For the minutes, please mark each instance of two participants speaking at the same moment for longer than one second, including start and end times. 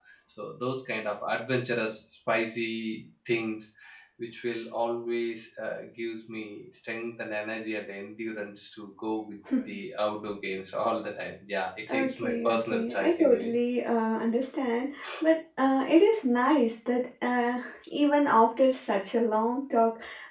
11.9-13.5

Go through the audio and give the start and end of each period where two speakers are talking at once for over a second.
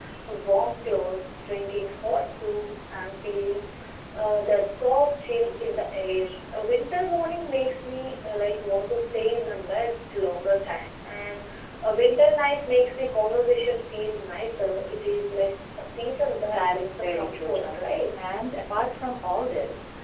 16.5-18.1

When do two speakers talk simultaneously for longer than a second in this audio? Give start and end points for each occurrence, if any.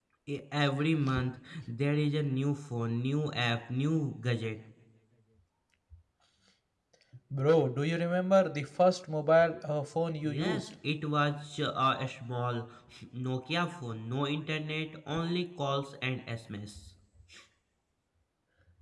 none

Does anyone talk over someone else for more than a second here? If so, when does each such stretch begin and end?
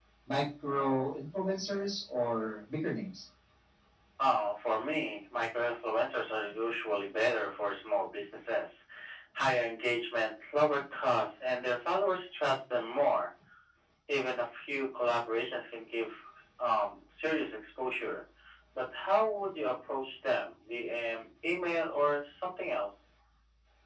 none

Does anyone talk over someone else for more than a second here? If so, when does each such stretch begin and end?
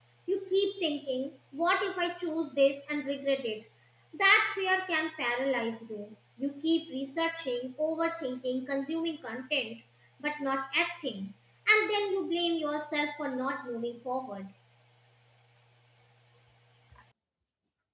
none

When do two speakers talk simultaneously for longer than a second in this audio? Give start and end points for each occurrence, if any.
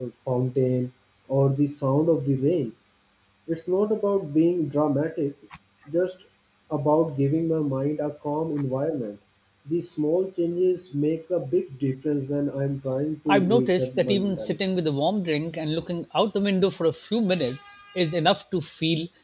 13.3-14.6

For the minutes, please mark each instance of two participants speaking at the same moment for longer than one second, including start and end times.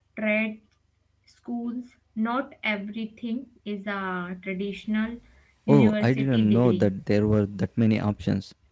5.7-6.9

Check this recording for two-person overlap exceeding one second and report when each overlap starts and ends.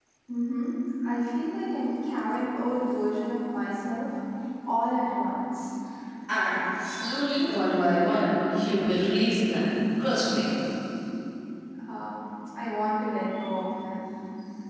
none

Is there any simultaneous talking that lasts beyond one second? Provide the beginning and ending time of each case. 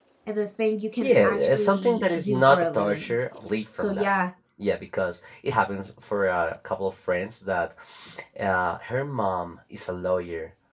1.0-3.1

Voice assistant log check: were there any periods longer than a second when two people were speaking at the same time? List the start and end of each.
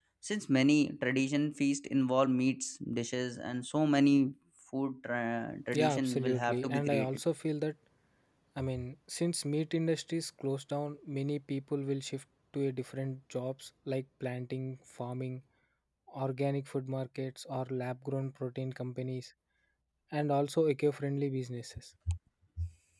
5.7-7.2

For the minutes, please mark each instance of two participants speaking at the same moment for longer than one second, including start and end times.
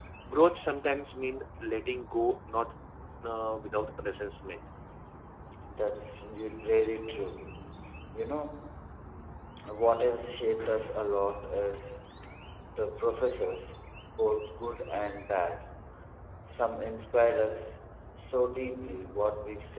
none

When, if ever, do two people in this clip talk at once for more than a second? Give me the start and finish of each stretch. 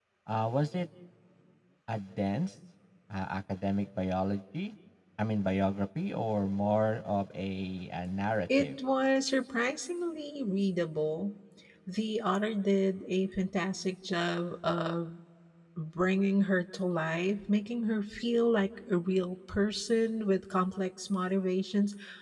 none

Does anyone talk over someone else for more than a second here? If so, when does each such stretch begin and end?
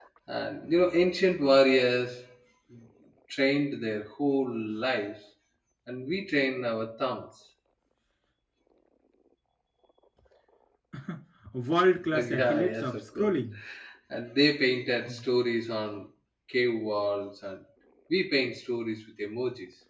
12.1-13.3

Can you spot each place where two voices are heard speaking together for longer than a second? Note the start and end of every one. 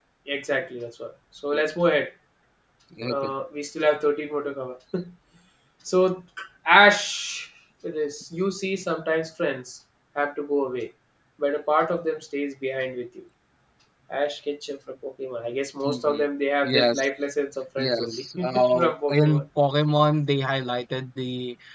17.8-19.4

